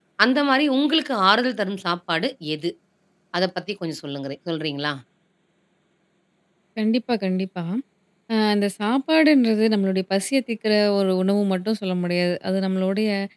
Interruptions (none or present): none